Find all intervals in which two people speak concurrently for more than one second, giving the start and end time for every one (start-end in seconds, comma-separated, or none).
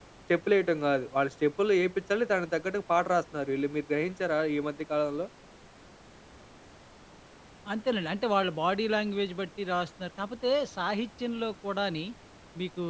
none